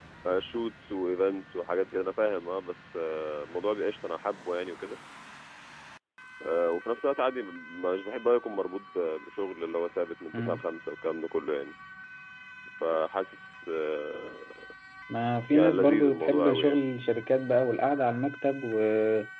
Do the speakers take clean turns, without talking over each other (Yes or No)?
No